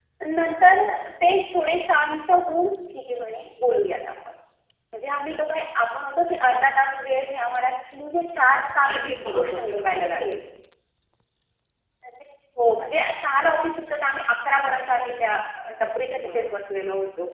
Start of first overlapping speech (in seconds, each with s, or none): 8.9 s